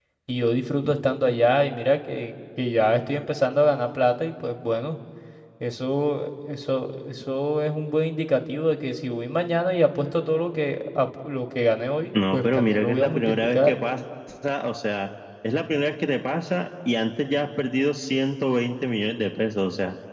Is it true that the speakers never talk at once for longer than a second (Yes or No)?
No